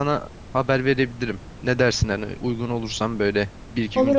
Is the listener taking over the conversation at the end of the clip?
Yes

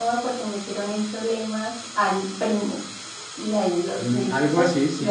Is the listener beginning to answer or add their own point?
Yes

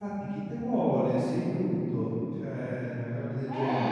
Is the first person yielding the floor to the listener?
No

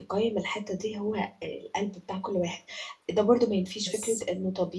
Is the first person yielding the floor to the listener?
No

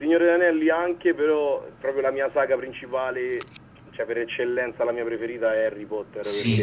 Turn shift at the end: Yes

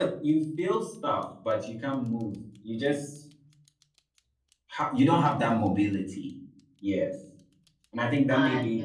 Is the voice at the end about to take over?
No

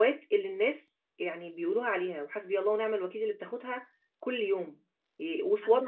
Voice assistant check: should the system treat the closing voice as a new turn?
No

